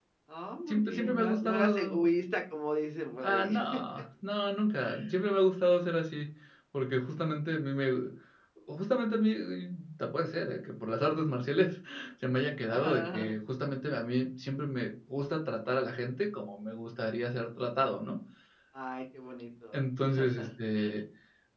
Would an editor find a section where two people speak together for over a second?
Yes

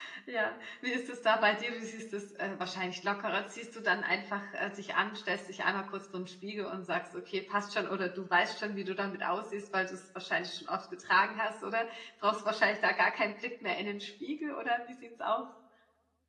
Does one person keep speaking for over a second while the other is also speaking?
No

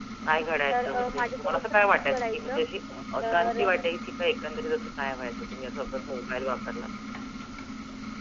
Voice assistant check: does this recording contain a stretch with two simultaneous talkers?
Yes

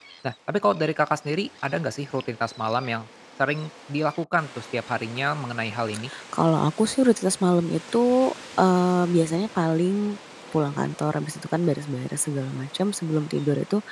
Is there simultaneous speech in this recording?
No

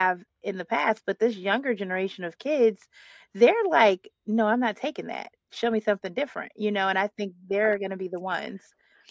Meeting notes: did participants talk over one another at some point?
No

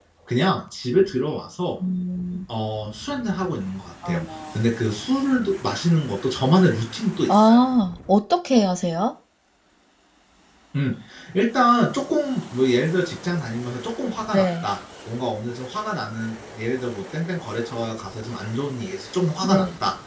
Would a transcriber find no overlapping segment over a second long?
Yes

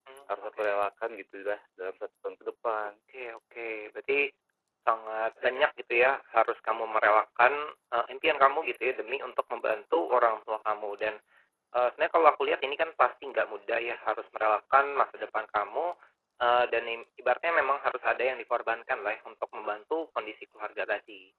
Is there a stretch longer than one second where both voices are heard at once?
No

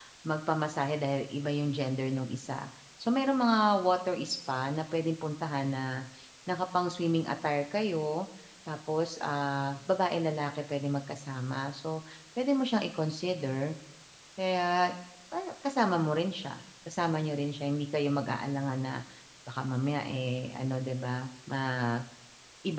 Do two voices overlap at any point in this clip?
No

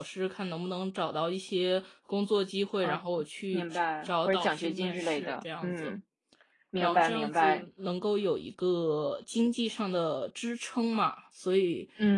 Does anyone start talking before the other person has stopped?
Yes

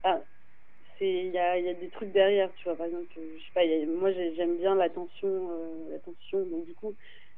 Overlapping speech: No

